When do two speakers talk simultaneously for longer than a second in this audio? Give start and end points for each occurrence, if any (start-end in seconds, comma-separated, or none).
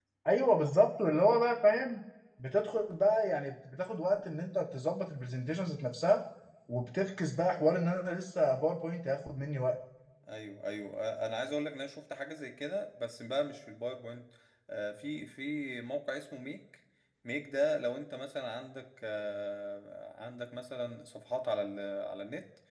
none